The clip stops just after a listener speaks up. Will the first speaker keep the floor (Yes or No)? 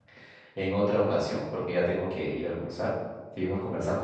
No